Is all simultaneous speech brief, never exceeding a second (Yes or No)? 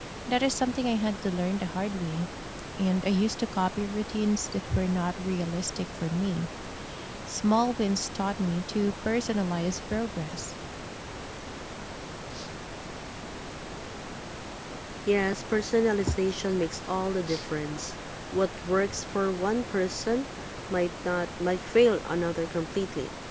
Yes